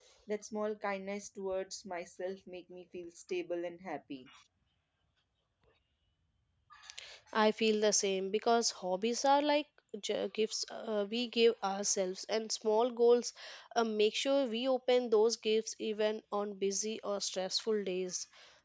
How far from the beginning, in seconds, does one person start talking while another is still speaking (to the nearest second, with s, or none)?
none